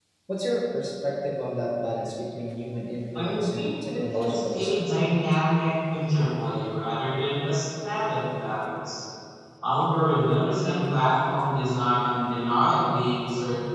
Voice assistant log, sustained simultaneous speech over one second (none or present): present